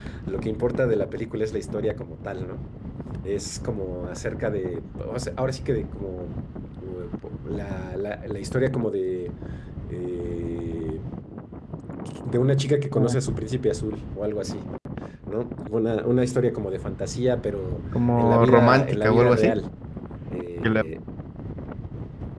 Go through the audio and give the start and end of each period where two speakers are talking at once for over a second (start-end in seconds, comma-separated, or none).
18.2-19.6